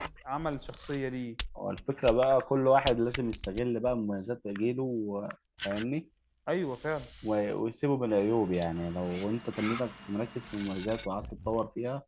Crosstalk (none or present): none